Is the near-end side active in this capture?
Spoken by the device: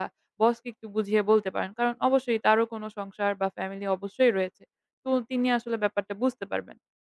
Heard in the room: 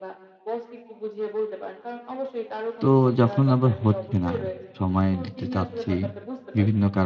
Yes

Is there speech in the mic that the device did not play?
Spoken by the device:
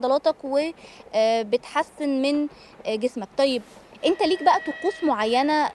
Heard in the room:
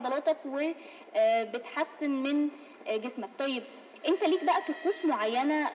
No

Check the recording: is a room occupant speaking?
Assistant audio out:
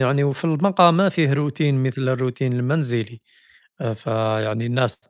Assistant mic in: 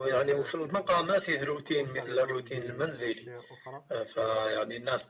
Yes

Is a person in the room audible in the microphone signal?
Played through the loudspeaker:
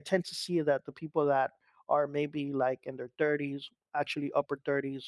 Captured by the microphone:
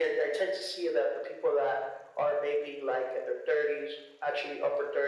No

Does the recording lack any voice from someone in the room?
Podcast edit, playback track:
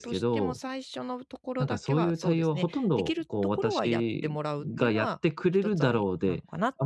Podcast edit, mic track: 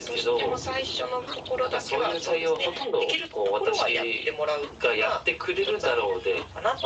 Yes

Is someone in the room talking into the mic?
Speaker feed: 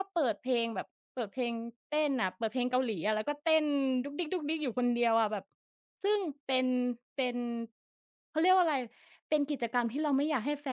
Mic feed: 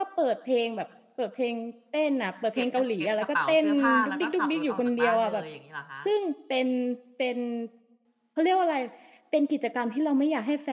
Yes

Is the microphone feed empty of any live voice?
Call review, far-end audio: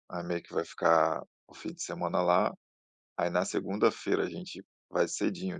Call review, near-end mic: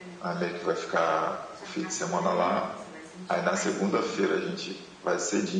No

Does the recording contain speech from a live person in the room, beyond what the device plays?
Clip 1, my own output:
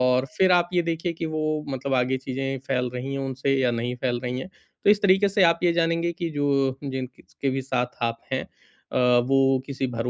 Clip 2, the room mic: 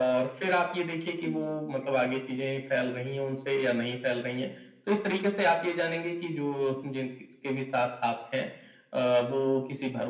Yes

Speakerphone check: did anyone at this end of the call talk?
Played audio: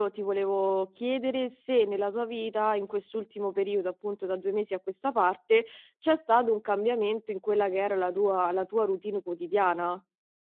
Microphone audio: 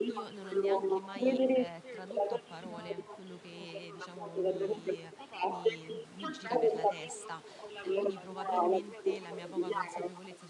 Yes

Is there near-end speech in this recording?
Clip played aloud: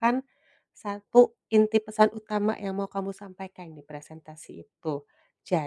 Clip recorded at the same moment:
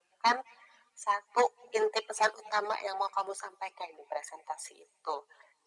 No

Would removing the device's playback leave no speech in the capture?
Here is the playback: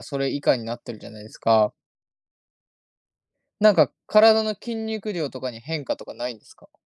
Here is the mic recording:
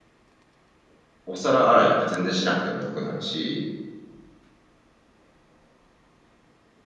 No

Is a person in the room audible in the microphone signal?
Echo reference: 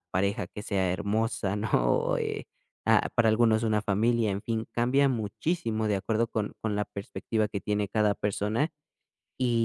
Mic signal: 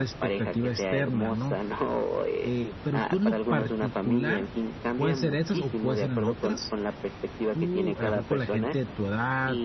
Yes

